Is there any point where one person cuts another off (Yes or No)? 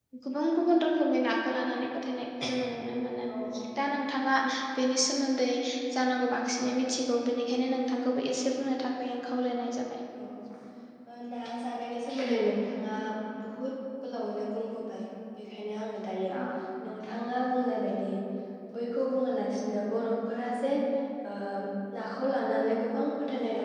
No